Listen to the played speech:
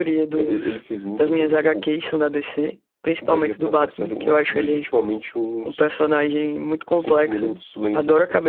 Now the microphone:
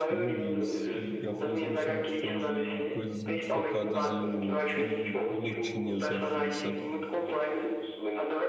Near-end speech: present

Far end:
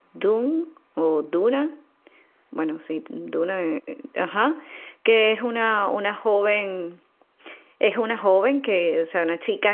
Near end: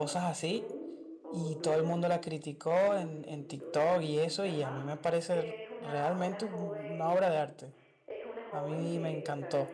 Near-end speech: present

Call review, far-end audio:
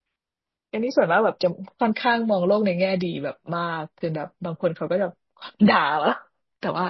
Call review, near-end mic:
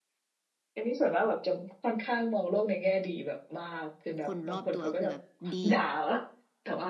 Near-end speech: present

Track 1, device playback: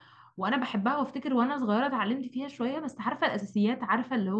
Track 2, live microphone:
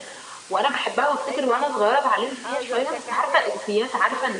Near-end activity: present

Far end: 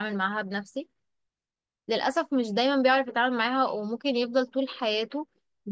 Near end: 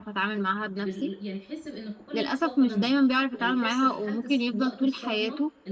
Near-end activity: present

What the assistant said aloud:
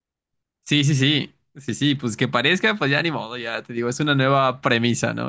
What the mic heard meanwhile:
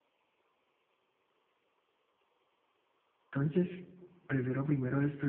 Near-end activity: present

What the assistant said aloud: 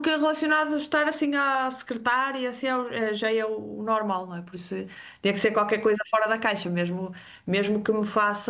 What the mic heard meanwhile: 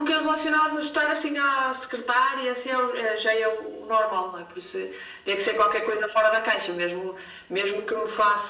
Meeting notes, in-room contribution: none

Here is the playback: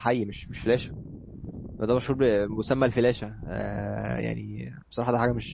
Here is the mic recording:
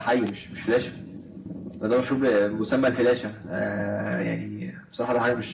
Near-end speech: none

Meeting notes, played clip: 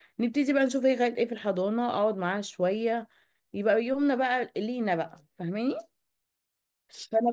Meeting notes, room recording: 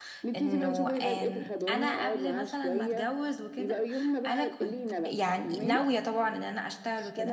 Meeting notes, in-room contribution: present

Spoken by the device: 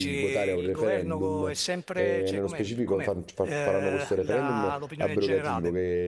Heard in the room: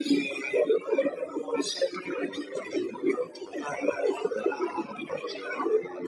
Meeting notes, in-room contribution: none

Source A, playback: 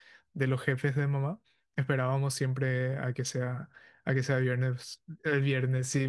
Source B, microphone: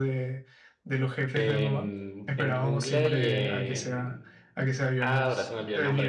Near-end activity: present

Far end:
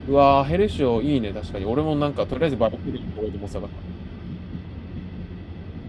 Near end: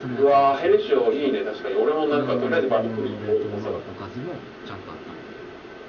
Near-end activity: present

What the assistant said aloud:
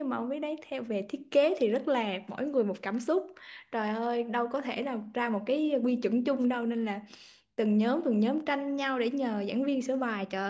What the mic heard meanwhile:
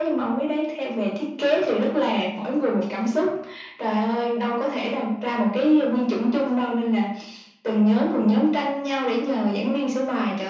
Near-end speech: none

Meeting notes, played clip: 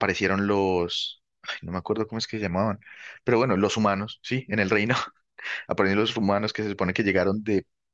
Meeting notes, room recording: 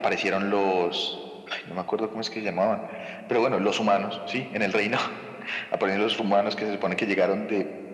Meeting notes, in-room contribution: none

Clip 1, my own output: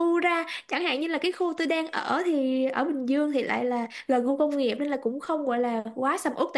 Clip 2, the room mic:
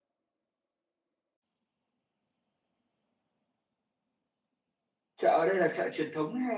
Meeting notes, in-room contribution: present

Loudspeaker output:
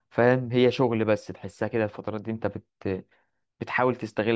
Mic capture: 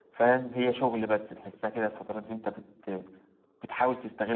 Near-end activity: none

